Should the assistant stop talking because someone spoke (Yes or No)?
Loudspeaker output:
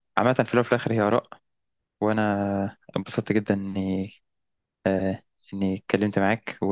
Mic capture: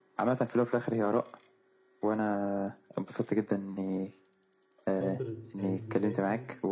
Yes